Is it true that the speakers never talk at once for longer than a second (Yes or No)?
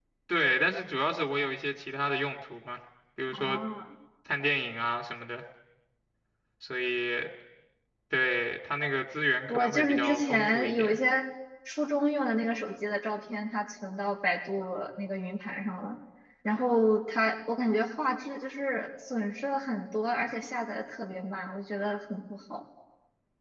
No